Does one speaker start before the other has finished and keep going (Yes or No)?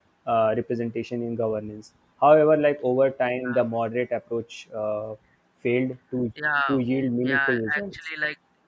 Yes